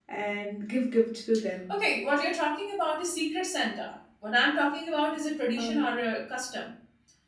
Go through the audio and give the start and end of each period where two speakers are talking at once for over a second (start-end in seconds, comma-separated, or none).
none